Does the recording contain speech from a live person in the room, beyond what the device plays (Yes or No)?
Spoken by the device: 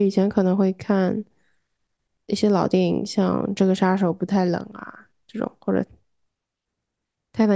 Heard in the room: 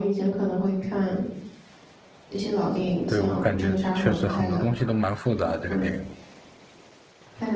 Yes